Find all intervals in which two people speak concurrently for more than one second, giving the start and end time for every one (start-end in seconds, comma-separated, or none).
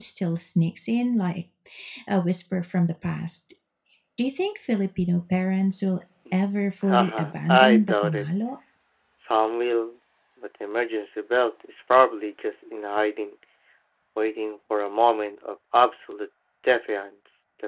6.9-8.2